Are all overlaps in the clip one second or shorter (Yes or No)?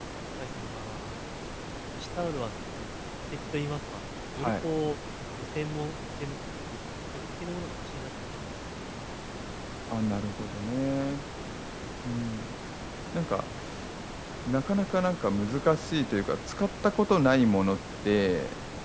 Yes